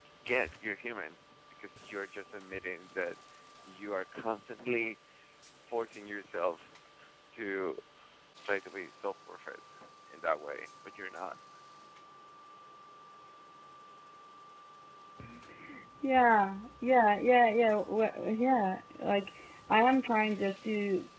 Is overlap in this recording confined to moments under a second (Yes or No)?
Yes